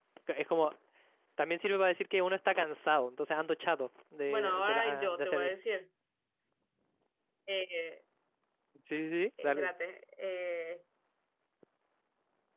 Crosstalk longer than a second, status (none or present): present